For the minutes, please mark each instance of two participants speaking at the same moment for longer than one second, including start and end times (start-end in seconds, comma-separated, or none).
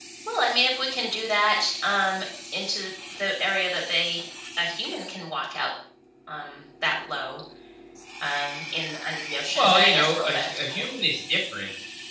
9.6-10.8